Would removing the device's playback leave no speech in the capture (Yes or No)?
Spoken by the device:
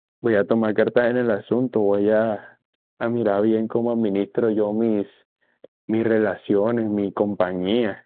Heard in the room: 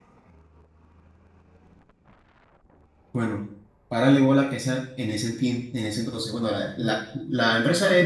No